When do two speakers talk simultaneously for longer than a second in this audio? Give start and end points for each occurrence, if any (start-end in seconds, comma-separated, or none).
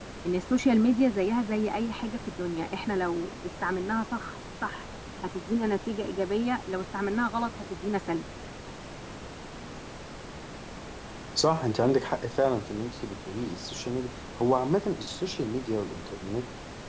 none